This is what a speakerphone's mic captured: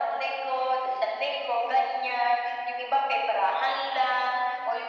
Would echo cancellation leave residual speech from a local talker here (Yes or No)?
No